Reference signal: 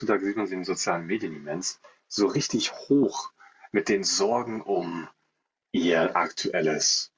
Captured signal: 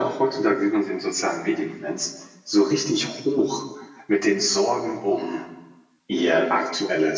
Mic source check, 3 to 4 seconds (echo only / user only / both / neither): echo only